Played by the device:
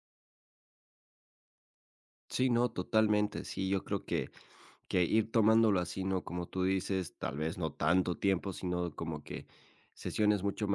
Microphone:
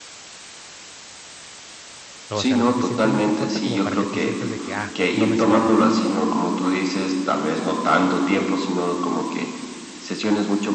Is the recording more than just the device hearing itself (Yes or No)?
Yes